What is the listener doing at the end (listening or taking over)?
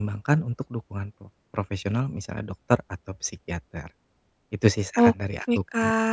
taking over